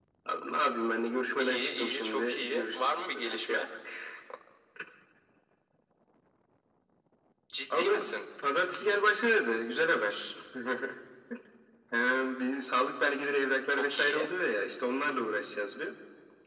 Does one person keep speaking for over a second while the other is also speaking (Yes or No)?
Yes